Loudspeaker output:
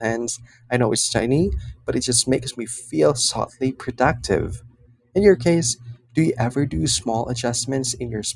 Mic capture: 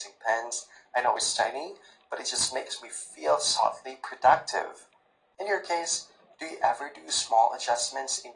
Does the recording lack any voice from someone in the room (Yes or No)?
Yes